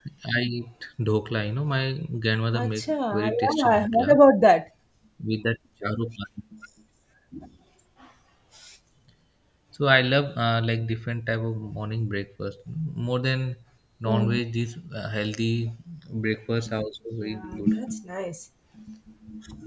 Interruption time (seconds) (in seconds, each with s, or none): 2.6 s